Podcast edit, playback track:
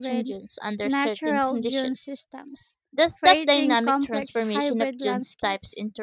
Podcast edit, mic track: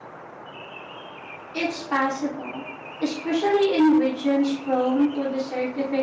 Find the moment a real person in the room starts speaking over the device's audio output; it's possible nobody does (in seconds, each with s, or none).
1.5 s